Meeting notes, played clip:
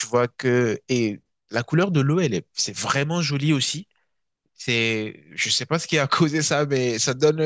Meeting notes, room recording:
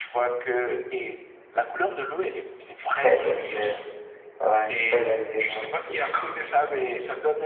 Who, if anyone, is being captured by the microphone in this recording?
both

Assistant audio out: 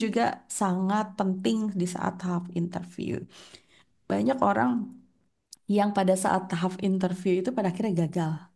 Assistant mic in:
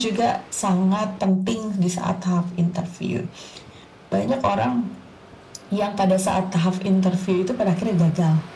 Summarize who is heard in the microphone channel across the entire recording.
echo only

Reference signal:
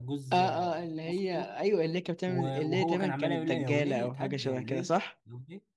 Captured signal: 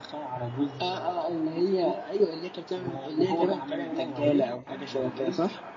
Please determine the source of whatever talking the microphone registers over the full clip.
echo only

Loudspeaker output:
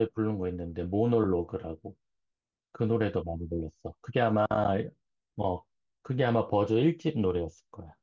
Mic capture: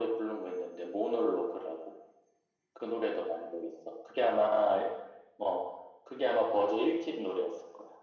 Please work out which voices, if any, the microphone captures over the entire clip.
echo only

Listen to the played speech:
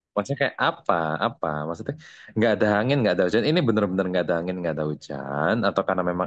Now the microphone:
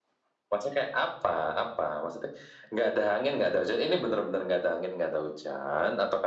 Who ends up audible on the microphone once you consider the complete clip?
echo only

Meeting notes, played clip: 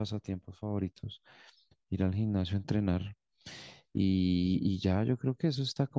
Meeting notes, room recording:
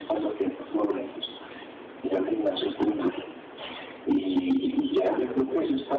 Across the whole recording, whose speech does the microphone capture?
echo only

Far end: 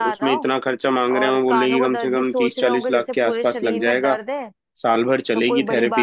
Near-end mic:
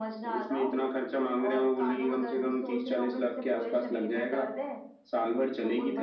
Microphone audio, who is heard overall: echo only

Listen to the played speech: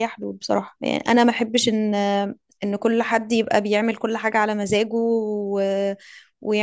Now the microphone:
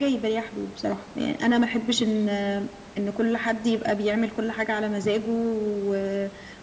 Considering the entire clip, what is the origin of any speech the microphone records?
echo only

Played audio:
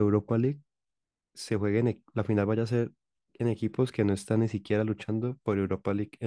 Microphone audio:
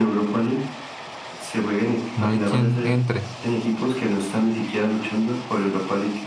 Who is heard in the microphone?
both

